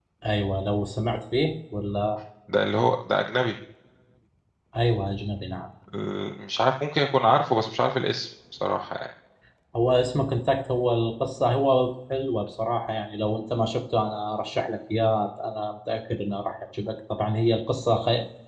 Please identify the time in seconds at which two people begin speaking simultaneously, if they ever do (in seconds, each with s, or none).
none